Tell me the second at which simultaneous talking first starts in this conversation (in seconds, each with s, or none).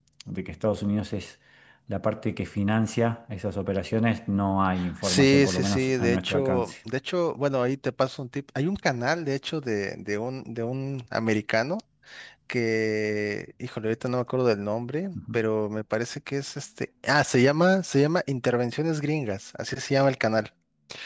4.8 s